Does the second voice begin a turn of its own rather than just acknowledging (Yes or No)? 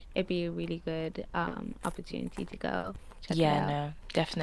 Yes